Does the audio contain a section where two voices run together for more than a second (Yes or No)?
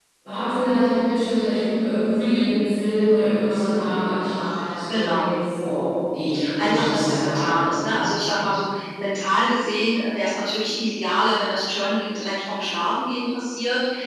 Yes